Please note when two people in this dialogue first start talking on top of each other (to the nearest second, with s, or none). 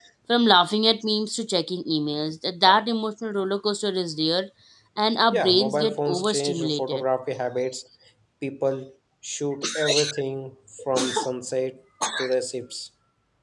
5 s